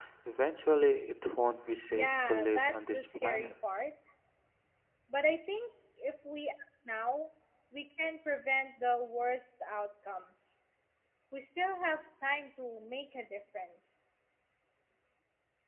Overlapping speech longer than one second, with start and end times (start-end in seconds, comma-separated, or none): 1.9-3.5